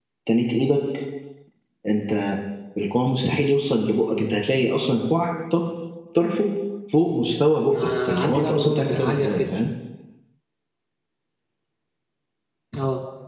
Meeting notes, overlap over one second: present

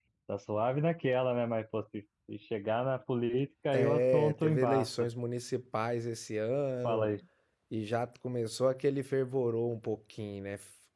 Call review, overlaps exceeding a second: present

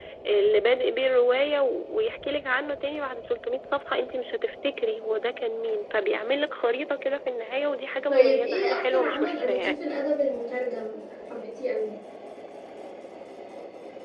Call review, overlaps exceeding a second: present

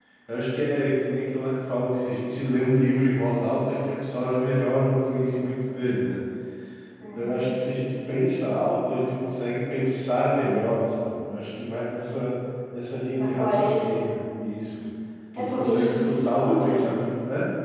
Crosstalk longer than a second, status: present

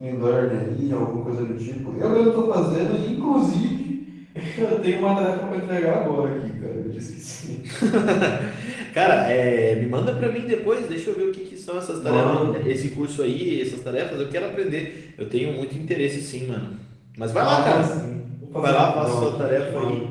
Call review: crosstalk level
present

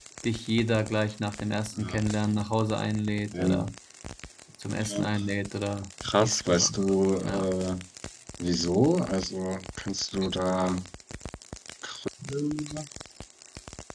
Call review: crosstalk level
present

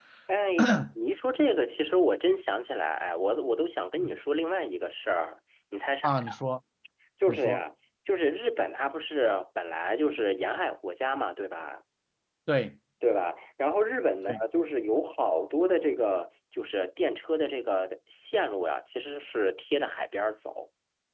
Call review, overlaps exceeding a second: none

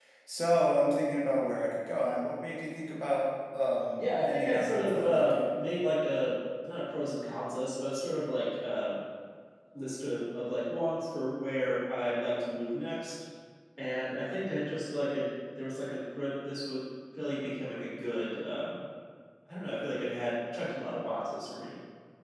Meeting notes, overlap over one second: present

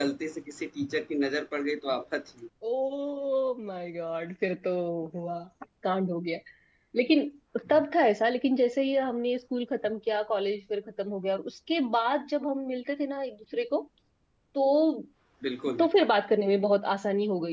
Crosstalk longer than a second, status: none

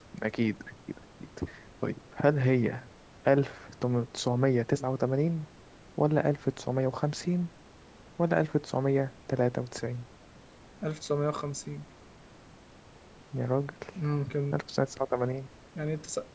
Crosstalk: none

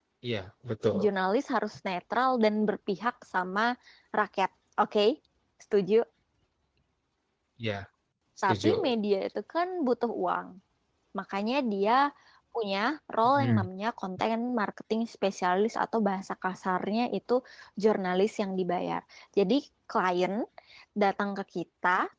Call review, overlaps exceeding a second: none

